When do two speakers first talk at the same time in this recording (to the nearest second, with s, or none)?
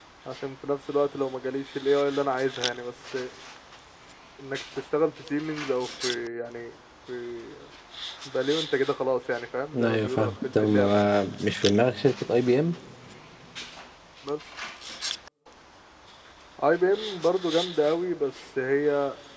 10 s